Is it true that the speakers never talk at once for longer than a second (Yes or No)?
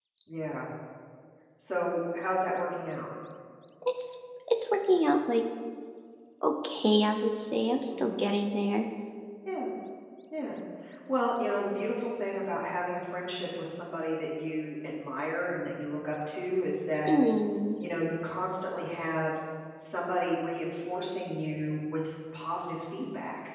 Yes